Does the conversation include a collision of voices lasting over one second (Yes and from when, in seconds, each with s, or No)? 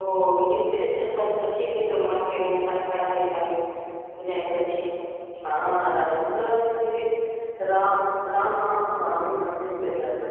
No